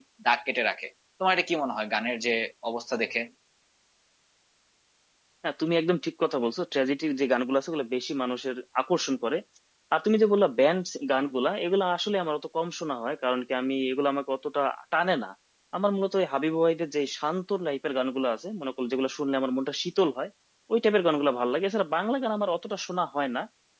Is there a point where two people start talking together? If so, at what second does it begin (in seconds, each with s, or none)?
none